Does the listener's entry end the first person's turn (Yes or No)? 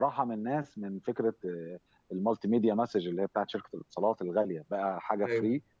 No